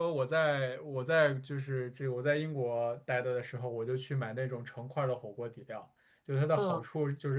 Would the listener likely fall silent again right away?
Yes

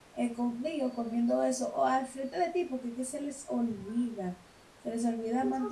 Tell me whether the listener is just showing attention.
No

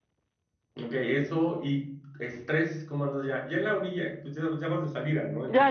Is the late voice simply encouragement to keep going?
No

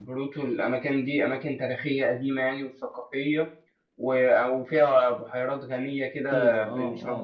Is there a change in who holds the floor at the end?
Yes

